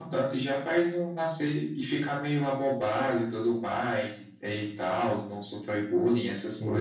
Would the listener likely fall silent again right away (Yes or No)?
No